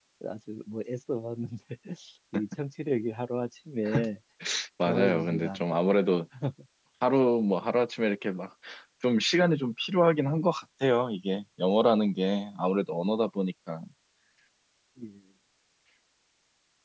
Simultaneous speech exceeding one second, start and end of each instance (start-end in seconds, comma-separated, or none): 4.9-6.1